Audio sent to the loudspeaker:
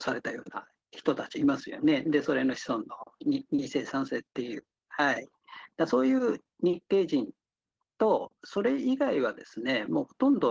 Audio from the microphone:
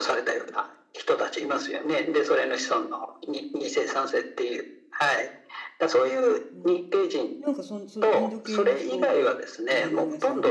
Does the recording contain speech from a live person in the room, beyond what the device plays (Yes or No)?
Yes